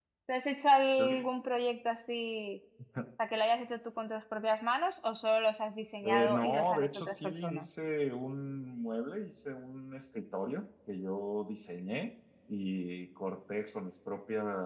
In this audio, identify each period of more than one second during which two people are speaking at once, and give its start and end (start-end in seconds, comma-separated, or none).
6.0-7.7